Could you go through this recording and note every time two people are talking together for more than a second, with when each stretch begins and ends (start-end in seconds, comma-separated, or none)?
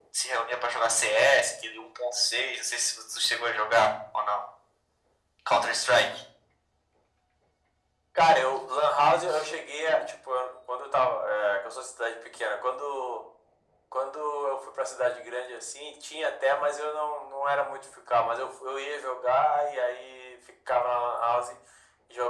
none